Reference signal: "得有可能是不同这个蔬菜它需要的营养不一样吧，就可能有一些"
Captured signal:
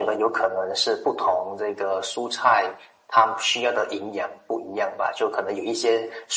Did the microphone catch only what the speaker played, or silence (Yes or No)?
Yes